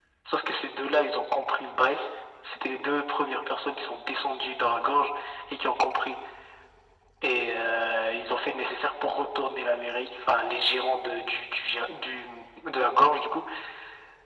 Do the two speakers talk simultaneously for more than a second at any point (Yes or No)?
No